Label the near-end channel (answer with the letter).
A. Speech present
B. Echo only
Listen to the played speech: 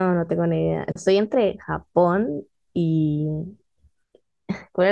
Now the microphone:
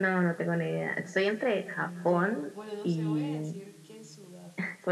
A